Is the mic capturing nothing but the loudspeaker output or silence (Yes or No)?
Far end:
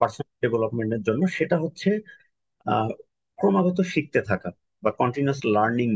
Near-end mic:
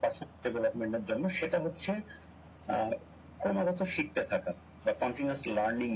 Yes